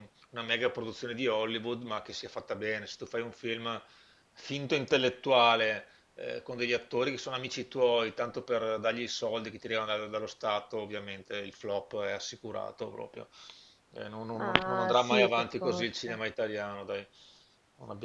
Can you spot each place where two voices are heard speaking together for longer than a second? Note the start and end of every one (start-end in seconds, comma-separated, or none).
14.4-16.2